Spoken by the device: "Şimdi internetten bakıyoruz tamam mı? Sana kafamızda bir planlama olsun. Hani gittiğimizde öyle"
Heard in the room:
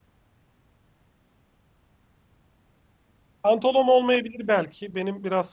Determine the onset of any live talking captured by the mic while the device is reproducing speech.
3 s

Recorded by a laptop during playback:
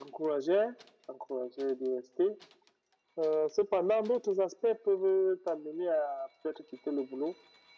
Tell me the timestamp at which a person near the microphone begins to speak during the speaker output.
none

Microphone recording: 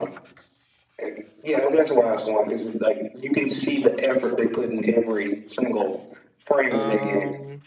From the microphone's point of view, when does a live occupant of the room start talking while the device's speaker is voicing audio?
7 s

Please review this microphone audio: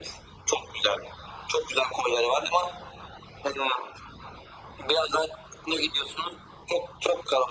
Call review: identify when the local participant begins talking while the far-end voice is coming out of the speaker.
none

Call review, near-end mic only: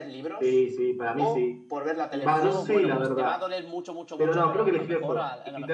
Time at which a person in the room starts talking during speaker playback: 2 s

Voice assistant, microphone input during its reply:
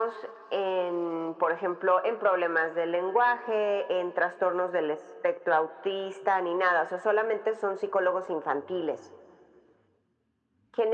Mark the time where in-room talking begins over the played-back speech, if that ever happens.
none

